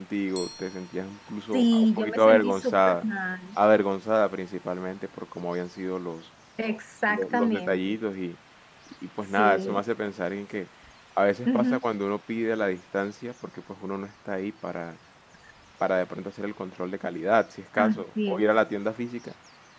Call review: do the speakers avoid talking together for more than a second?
No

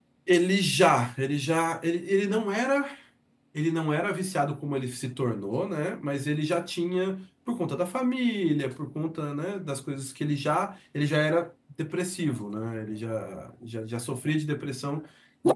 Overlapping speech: No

